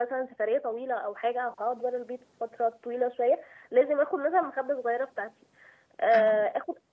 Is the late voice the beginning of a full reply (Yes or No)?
No